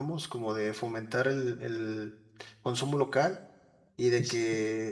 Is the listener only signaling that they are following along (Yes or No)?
Yes